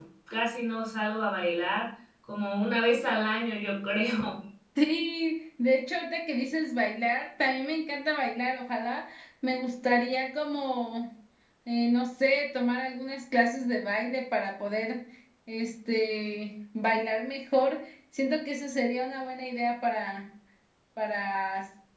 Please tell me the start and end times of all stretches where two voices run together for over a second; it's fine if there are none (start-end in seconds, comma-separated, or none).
none